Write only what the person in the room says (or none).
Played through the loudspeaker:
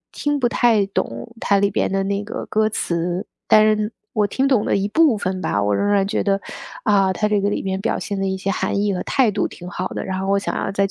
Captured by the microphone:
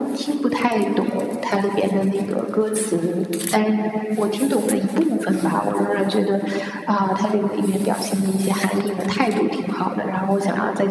none